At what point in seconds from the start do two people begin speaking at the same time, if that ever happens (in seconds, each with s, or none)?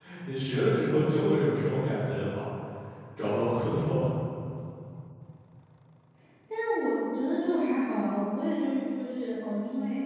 none